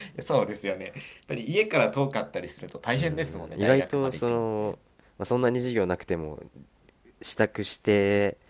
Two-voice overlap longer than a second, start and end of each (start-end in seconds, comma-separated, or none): 3.0-4.7